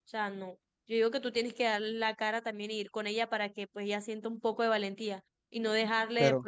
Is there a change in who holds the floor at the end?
No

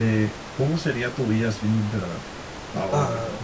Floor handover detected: Yes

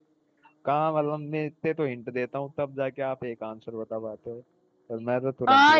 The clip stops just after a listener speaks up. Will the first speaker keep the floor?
No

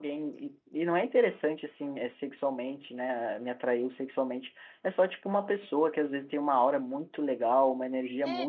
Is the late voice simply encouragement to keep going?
Yes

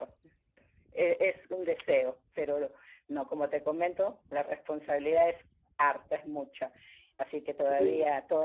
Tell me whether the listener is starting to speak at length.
No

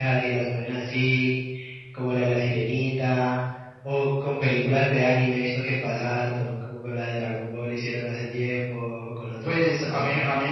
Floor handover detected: Yes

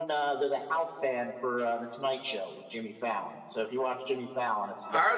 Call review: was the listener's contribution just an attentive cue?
No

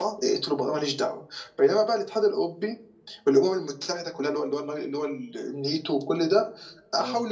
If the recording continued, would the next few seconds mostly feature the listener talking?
No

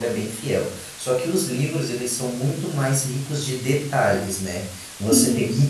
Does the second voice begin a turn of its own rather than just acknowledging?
No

